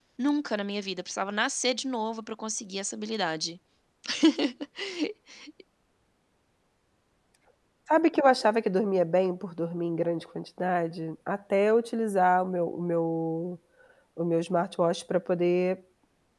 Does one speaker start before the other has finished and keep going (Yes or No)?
No